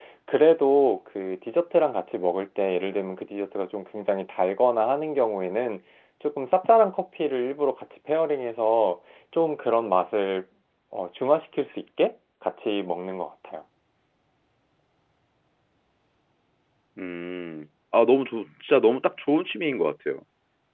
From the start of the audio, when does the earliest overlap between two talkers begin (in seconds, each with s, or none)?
none